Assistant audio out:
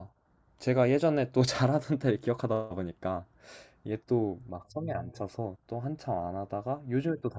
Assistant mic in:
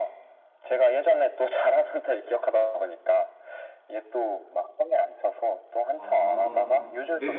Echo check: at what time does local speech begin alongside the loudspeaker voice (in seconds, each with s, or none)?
6.0 s